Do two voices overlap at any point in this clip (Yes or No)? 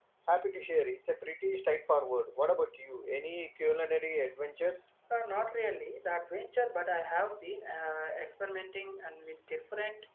No